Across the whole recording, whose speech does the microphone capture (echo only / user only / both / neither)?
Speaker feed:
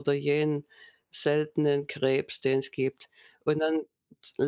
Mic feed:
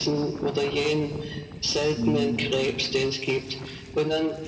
both